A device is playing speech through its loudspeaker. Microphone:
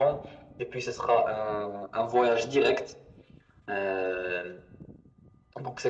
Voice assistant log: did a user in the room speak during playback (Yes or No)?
No